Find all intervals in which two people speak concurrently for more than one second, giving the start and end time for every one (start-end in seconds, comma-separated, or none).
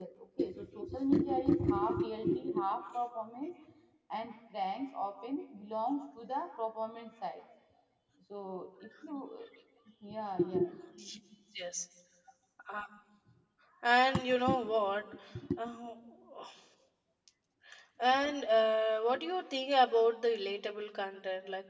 none